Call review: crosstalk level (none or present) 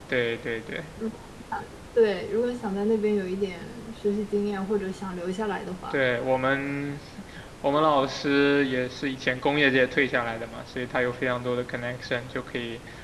none